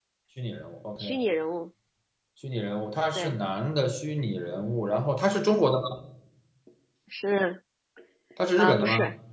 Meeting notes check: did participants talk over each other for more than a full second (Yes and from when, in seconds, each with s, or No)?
No